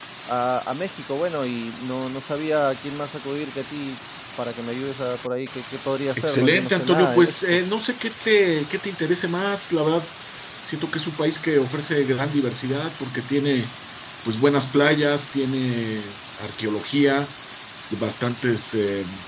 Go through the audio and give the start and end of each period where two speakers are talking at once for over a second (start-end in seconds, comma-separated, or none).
6.2-7.4